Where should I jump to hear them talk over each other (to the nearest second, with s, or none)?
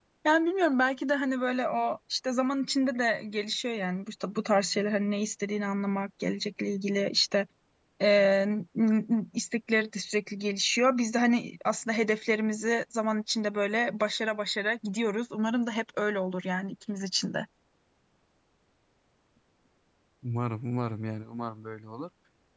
none